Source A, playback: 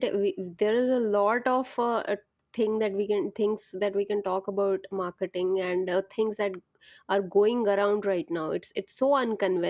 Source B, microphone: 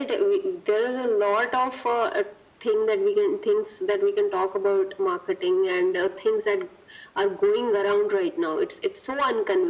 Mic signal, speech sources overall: echo only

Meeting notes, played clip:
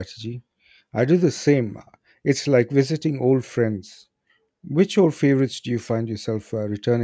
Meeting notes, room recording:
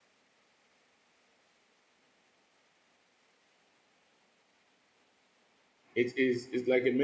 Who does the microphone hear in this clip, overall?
user only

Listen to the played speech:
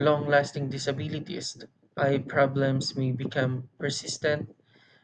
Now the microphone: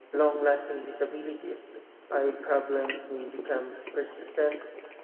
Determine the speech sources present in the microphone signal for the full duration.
echo only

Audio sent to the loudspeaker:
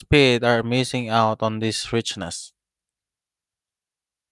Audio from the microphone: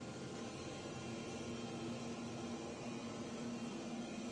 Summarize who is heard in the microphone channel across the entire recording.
neither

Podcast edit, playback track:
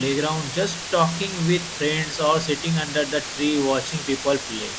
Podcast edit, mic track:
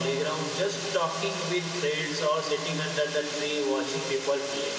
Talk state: echo only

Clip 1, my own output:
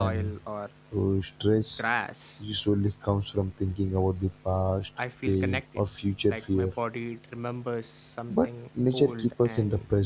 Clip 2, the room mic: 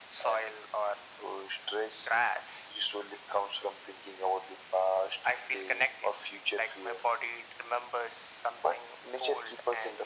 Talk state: echo only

